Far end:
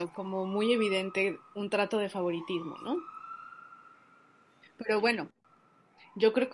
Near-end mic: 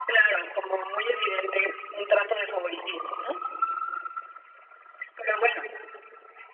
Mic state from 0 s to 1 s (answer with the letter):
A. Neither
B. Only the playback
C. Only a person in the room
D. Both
B